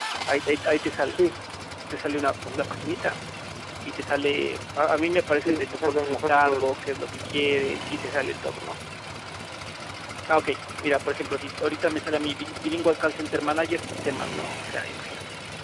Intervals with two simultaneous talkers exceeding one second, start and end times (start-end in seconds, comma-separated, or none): 5.5-6.8